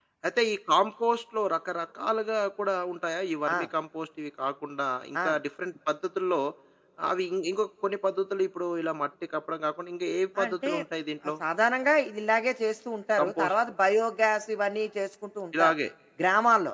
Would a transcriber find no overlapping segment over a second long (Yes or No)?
Yes